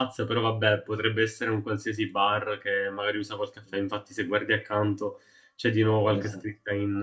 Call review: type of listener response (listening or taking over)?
listening